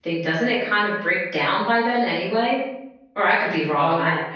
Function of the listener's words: taking over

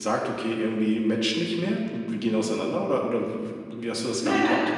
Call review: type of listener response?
taking over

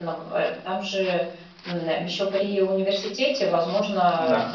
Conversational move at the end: listening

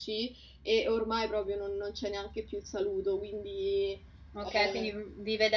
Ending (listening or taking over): taking over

